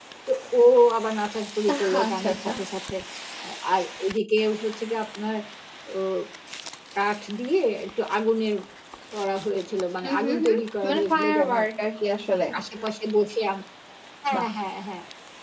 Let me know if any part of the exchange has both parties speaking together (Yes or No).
Yes